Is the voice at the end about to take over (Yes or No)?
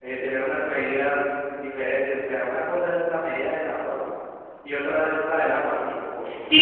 Yes